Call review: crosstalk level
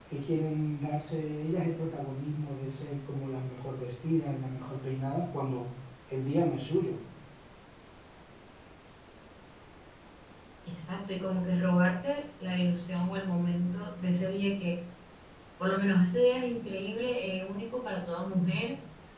none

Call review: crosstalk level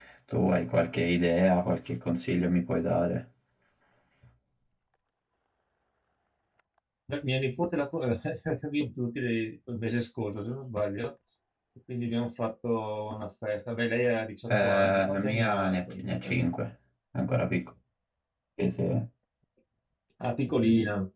present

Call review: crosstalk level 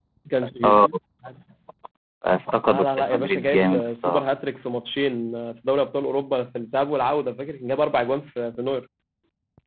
present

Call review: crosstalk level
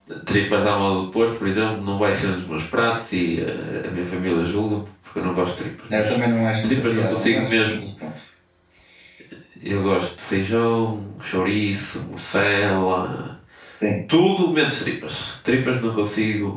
present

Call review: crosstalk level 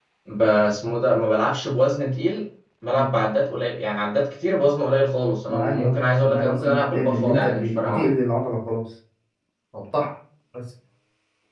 present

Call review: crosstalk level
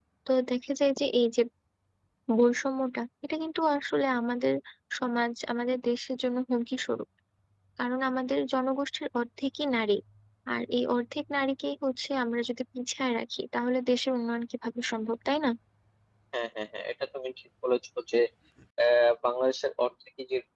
none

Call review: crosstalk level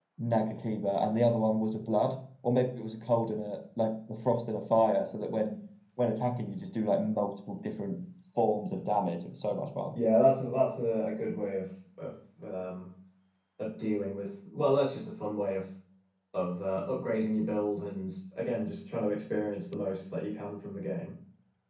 none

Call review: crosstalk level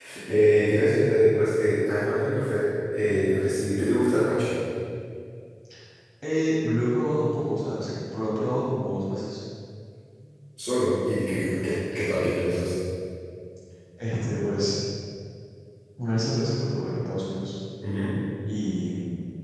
none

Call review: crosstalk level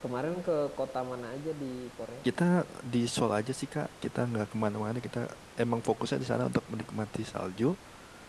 none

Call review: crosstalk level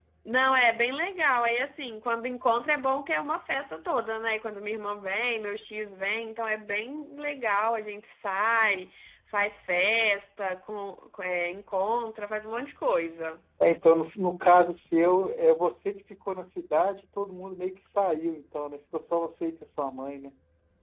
none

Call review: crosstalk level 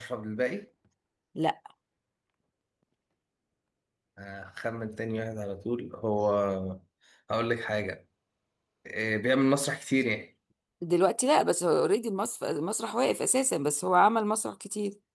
none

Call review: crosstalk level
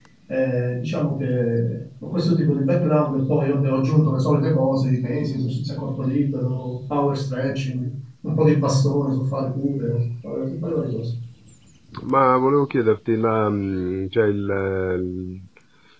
none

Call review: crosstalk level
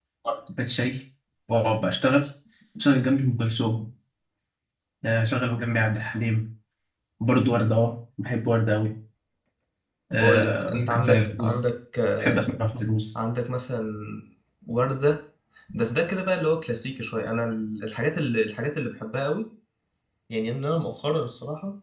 present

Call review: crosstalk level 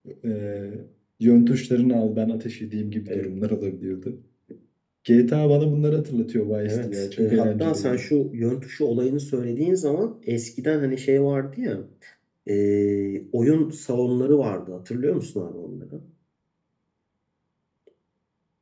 present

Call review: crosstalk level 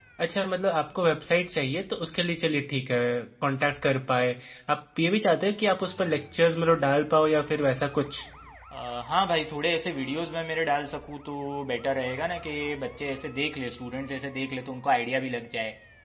none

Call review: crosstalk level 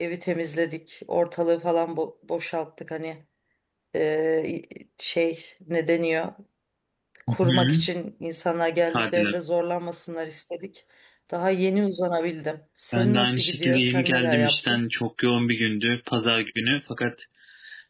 present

